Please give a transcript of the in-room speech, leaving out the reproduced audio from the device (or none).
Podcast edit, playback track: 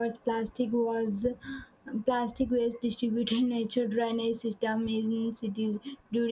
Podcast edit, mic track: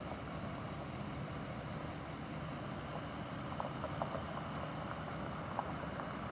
none